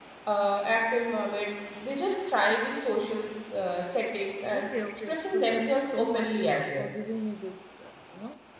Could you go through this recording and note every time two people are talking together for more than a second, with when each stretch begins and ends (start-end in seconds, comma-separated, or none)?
4.5-6.9